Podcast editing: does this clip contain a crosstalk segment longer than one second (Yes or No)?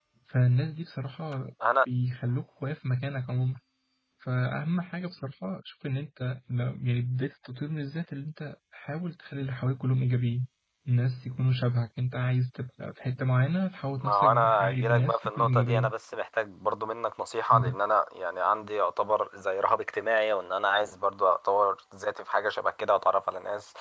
Yes